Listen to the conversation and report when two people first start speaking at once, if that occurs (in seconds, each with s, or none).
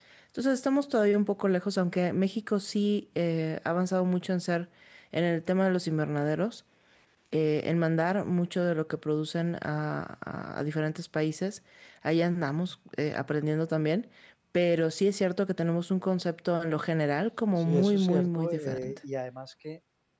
17.6 s